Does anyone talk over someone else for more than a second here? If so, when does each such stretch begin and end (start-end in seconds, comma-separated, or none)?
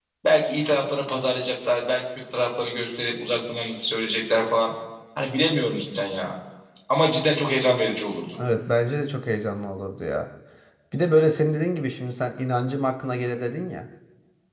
none